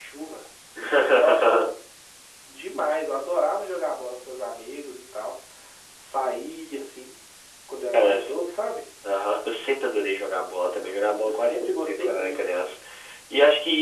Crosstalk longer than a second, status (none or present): present